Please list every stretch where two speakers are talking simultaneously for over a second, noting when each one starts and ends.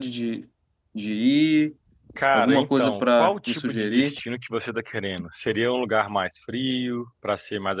2.3-4.1

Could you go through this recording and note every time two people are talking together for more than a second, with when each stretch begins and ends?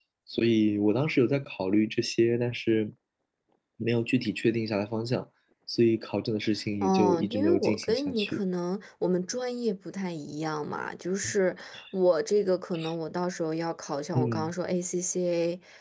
6.8-8.4

